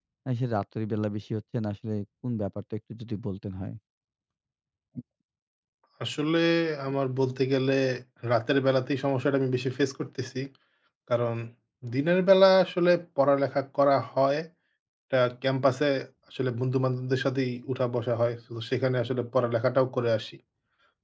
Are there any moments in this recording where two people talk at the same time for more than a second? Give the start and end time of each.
none

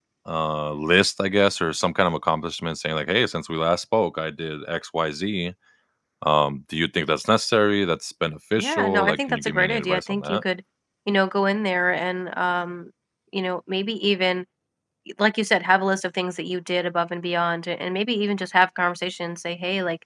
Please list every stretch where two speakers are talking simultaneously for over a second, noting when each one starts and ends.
8.6-10.4

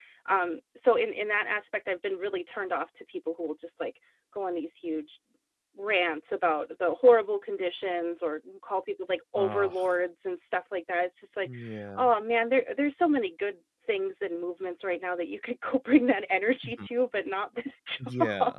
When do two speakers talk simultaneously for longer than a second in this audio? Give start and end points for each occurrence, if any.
none

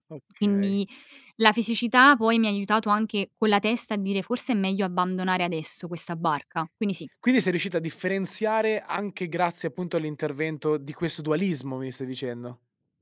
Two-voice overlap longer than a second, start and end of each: none

